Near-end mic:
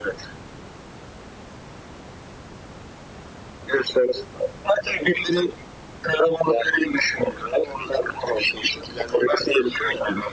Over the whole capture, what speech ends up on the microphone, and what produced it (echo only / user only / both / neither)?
echo only